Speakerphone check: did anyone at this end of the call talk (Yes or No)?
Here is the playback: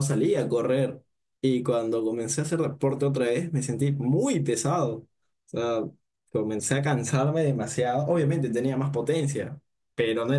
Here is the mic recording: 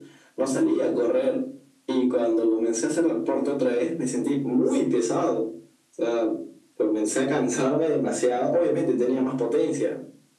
No